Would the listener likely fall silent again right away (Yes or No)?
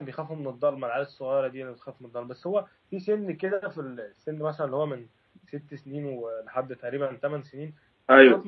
Yes